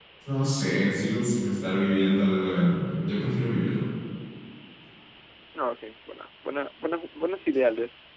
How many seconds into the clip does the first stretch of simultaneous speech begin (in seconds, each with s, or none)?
none